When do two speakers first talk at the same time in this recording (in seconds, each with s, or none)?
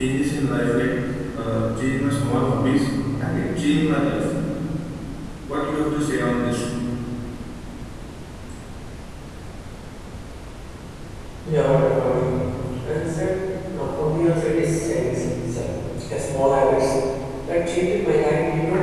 none